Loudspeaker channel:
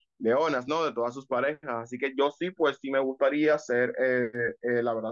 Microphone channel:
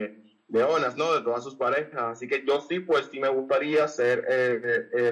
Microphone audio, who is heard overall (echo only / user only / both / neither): echo only